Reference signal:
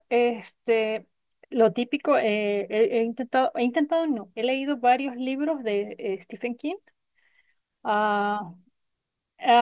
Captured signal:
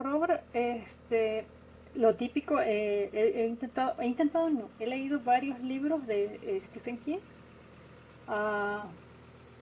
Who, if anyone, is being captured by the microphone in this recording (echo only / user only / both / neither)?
echo only